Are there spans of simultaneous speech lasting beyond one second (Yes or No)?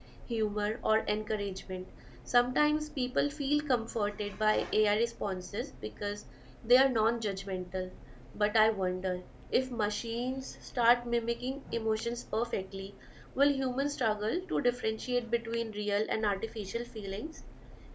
No